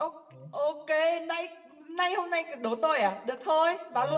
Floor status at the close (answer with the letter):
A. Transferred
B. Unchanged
A